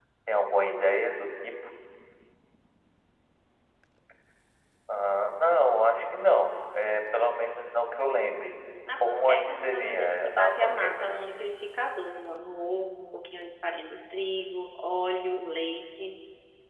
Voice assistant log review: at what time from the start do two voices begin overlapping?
8.9 s

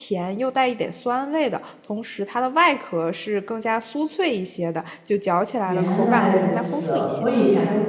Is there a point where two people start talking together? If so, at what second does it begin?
5.7 s

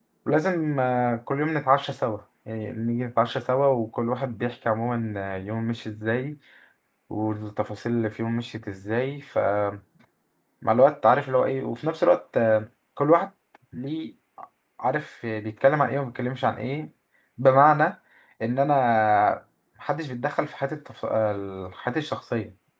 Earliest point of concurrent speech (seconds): none

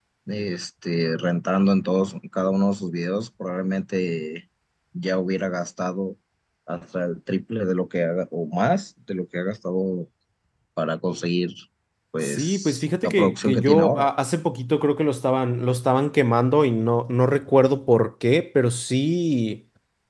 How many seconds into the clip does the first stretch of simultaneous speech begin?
12.2 s

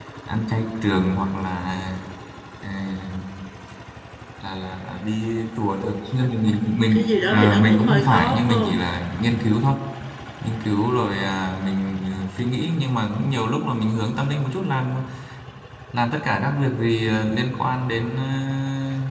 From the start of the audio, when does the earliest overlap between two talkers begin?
6.6 s

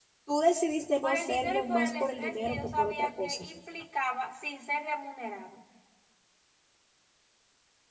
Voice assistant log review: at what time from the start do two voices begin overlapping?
1.0 s

